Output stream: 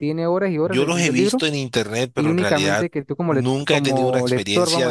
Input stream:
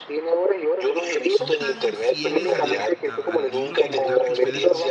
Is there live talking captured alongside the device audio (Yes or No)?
Yes